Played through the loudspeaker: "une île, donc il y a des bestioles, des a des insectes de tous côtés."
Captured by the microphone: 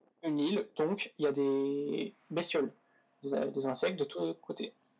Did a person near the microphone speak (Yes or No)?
No